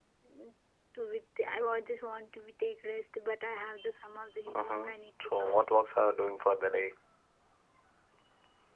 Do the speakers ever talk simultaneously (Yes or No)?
Yes